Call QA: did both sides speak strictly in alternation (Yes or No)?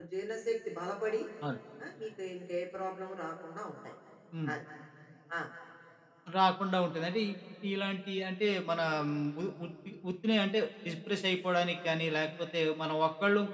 Yes